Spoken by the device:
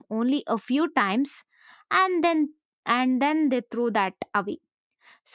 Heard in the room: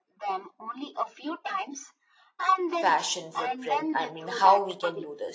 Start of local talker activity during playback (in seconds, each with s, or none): 2.8 s